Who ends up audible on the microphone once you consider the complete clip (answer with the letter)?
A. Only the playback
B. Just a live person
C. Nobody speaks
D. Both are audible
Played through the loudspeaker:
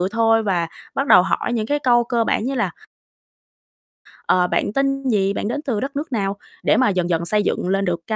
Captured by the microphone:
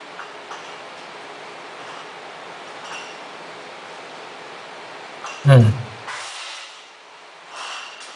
B